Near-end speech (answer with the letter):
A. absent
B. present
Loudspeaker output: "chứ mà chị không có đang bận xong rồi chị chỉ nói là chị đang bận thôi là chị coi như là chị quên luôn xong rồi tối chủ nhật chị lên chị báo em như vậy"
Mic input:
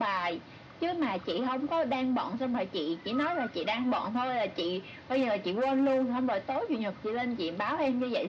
A